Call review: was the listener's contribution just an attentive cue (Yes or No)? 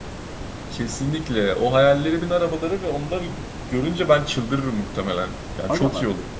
No